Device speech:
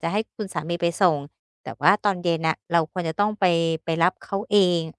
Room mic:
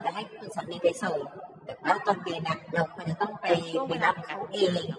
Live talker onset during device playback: 3.5 s

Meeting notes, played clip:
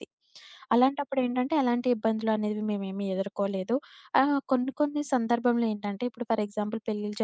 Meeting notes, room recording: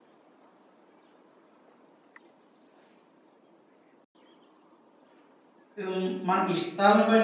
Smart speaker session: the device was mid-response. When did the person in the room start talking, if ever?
5.8 s

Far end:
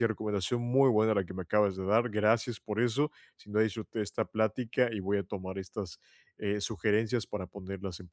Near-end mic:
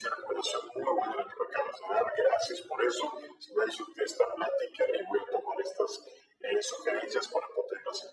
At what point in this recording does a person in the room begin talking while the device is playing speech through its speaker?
none

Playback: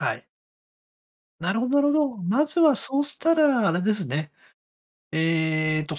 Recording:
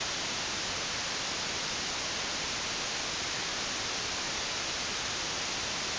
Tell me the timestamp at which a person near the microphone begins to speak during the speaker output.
none

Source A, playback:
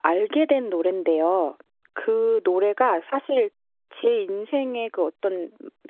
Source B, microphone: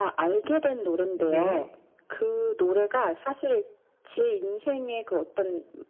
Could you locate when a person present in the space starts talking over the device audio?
1.1 s

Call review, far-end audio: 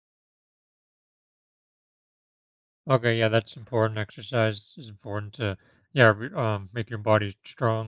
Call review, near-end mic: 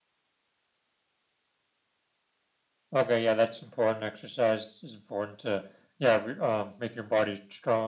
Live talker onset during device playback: none

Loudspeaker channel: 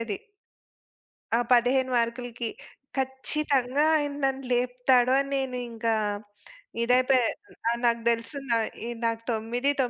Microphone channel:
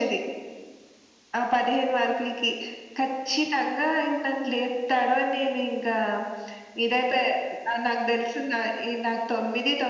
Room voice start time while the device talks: none

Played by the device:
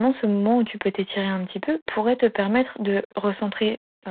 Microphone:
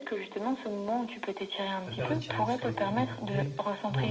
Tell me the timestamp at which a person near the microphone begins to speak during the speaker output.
1.9 s

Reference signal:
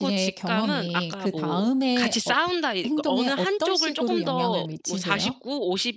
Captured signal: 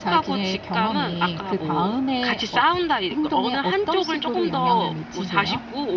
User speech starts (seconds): none

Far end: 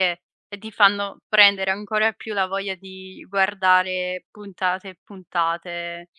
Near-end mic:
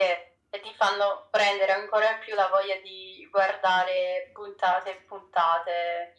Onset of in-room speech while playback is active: none

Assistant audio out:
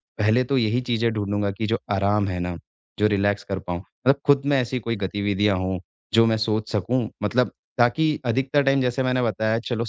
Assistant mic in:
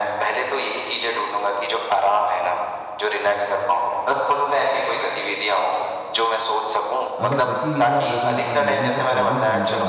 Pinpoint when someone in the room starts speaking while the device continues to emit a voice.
7.2 s

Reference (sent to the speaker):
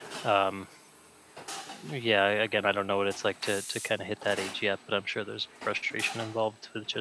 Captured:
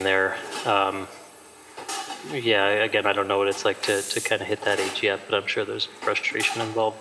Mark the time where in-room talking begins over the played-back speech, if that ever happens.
none

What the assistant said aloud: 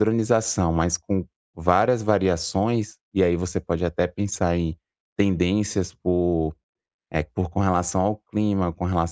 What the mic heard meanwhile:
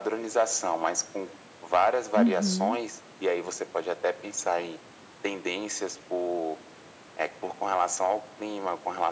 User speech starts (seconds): 2.1 s

